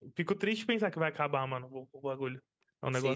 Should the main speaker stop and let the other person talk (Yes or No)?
Yes